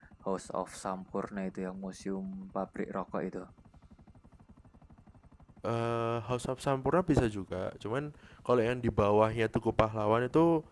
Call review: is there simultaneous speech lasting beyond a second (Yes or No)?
No